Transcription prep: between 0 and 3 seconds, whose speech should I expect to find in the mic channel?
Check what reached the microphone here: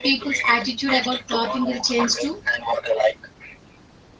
both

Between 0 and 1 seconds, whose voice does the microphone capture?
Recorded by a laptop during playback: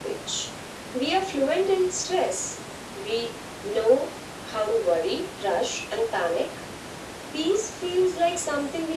echo only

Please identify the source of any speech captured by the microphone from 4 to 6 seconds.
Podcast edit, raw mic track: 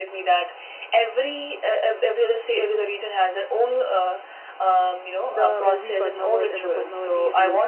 both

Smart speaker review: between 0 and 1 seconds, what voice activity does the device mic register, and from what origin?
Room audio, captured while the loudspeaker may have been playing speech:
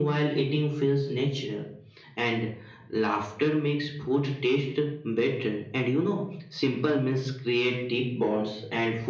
echo only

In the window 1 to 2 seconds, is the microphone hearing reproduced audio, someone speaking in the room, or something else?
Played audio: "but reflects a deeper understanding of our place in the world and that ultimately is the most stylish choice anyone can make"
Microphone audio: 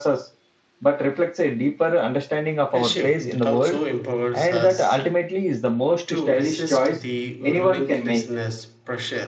echo only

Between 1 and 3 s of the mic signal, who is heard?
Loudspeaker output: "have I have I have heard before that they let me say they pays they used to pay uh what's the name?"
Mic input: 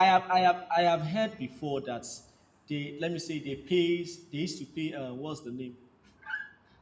echo only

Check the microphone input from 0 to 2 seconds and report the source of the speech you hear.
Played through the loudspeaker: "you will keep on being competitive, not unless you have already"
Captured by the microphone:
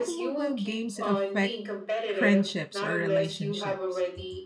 both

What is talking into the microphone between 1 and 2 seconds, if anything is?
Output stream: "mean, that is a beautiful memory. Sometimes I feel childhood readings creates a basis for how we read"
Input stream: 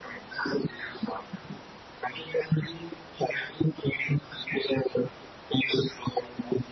echo only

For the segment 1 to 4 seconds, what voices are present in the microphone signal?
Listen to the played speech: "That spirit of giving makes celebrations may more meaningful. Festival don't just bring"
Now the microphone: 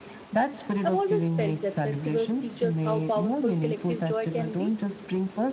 both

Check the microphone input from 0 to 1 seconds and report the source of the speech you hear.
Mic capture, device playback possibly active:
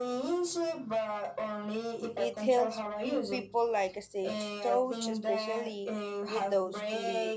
echo only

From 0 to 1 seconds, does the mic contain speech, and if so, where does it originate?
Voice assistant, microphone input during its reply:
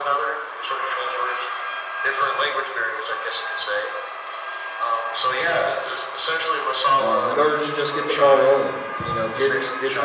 echo only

